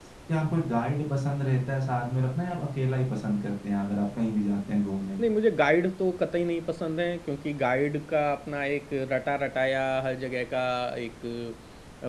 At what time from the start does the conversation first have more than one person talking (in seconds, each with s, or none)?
none